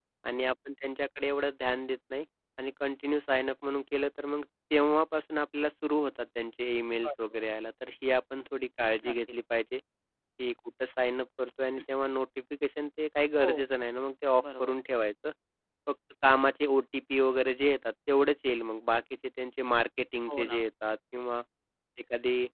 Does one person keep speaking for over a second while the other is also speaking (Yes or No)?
No